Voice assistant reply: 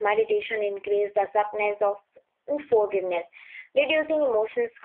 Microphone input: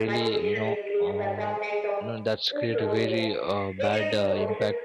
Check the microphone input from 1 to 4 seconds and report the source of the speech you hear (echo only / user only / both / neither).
both